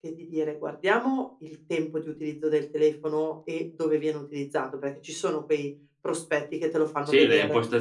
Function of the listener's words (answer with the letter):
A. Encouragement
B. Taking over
B